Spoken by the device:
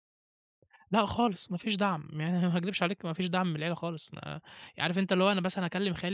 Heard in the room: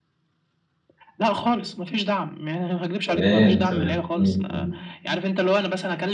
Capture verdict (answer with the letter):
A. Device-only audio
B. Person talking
B